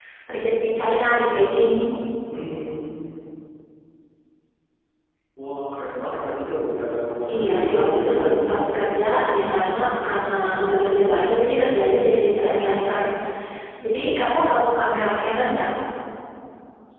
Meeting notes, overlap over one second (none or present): present